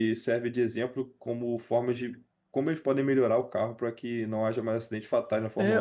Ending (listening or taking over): taking over